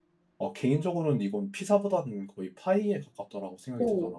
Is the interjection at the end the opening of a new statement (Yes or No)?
Yes